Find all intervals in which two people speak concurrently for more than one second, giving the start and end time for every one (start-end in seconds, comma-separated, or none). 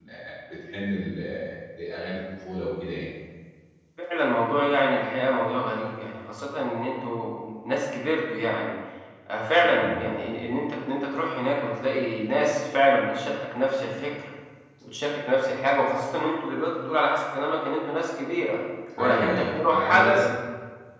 19.0-20.2